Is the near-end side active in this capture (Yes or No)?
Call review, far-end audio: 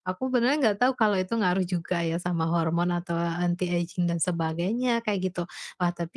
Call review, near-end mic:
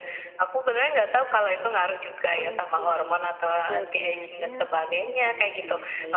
Yes